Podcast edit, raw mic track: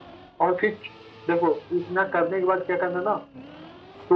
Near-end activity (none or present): none